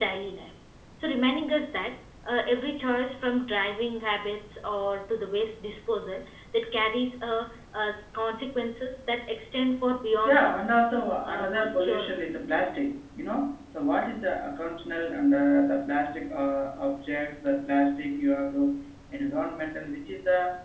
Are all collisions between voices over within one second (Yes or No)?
No